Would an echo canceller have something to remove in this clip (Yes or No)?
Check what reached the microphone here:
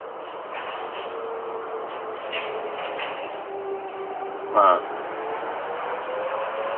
No